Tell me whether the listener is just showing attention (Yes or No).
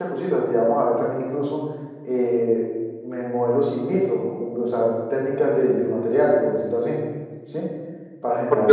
No